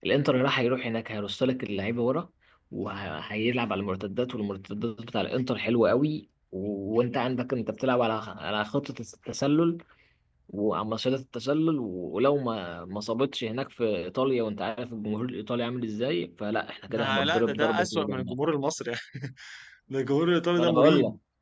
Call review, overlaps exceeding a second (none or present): present